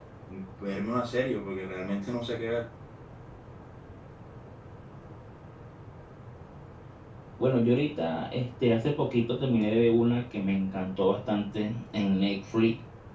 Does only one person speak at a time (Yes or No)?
Yes